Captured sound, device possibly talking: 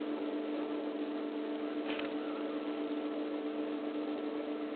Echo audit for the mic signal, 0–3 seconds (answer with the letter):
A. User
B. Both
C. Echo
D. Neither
D